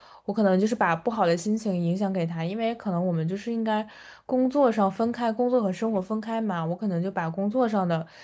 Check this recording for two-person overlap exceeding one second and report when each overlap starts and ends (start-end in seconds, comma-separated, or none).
none